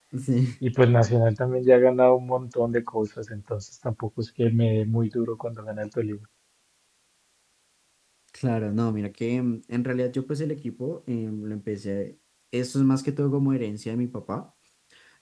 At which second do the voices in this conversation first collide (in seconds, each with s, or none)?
none